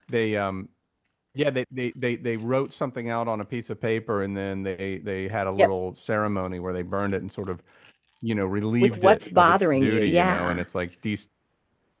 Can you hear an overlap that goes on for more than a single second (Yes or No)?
Yes